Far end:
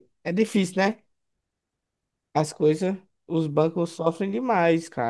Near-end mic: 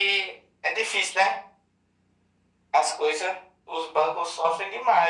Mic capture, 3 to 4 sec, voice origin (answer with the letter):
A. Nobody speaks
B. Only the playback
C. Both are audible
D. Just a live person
B